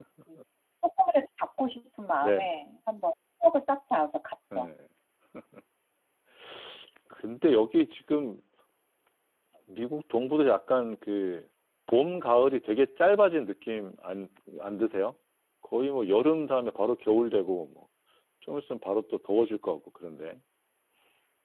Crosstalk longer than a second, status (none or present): none